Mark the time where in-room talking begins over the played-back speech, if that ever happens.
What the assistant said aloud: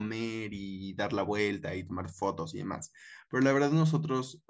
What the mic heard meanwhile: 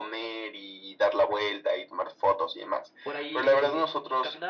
3.0 s

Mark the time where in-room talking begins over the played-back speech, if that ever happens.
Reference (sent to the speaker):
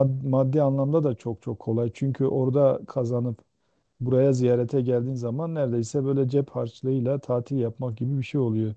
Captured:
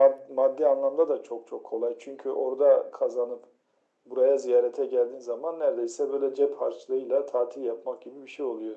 none

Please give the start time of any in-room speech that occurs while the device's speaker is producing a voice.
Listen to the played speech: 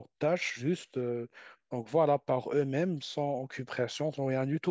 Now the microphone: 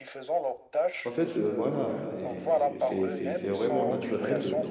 1.1 s

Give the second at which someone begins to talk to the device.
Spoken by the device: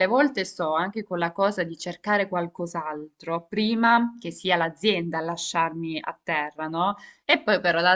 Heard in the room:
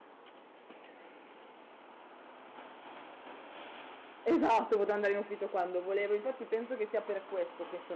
4.3 s

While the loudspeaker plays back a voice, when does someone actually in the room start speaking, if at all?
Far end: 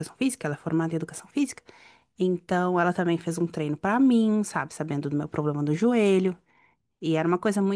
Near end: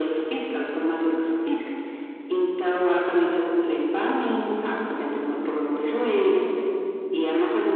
none

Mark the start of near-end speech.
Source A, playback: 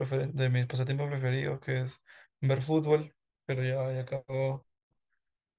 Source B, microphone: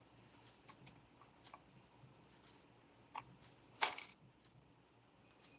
none

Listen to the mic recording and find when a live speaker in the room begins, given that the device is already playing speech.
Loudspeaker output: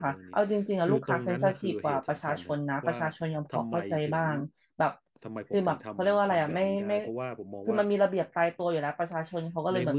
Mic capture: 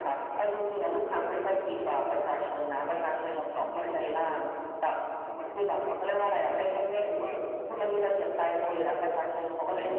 none

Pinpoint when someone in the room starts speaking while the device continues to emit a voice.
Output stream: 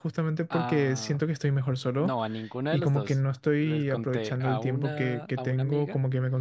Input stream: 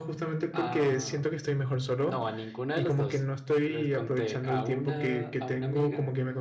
none

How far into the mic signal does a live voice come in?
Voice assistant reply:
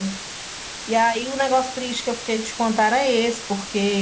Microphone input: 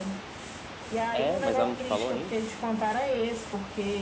1.1 s

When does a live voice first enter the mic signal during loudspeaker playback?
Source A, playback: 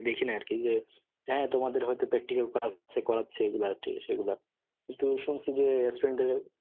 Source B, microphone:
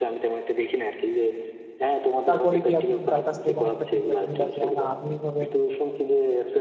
2.3 s

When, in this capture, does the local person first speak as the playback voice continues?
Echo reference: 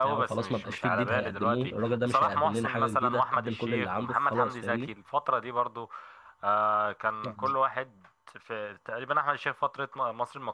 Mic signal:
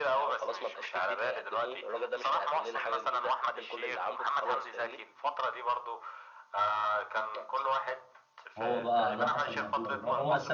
8.6 s

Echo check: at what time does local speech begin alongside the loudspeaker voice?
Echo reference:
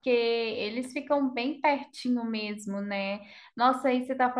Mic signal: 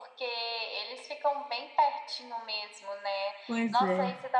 3.4 s

